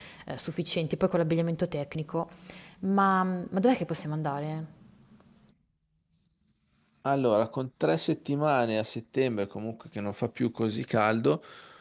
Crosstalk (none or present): none